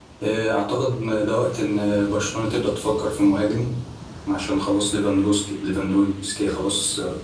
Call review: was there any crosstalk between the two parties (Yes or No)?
No